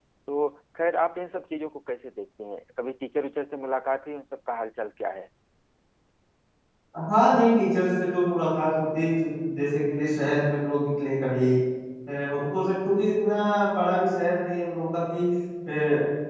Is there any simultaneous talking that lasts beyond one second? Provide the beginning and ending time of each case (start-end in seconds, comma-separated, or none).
none